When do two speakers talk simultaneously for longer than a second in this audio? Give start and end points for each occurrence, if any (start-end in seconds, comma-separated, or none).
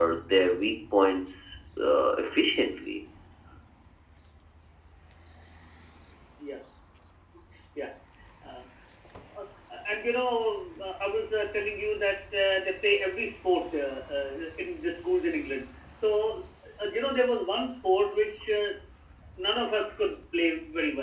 none